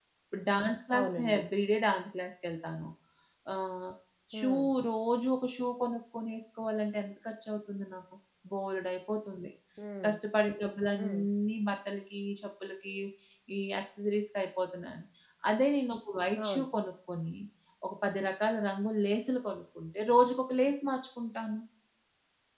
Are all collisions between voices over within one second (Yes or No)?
Yes